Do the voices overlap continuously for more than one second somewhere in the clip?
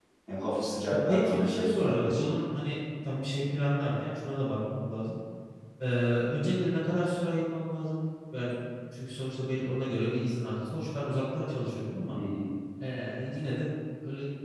Yes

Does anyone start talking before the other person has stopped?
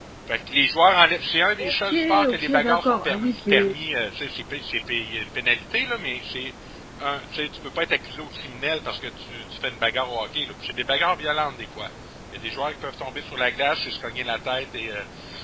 Yes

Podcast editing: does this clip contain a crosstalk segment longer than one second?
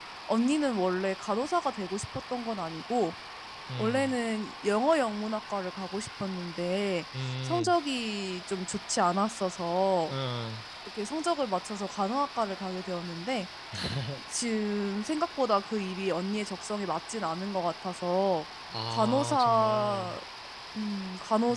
Yes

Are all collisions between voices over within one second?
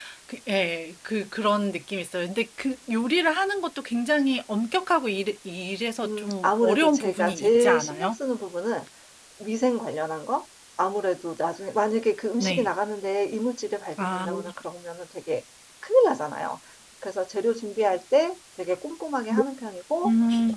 No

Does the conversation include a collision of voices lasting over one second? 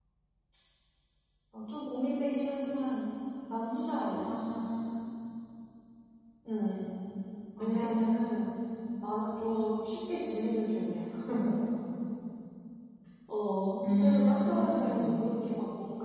Yes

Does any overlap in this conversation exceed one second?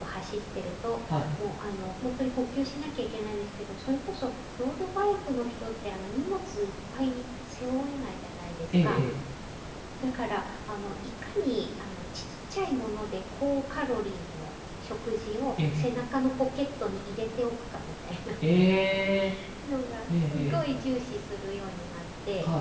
No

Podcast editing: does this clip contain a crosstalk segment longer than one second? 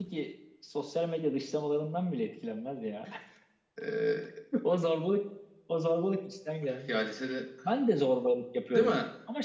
No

